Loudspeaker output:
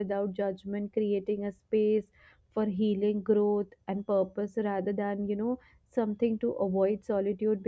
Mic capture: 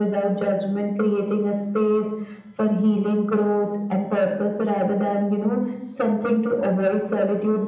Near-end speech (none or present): none